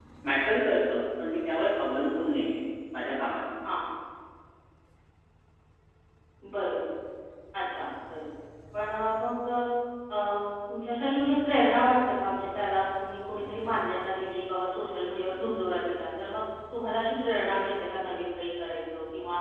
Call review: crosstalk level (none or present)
none